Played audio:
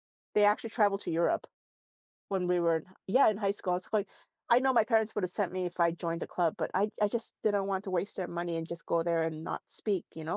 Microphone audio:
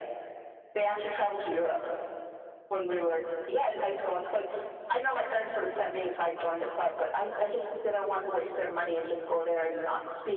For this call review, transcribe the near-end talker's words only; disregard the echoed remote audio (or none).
none